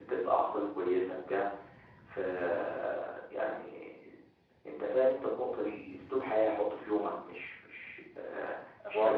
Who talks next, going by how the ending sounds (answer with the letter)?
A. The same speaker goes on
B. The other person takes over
B